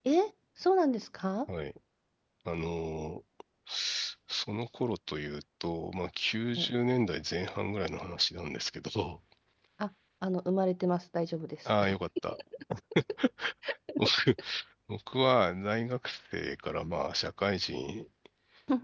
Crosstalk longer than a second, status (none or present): none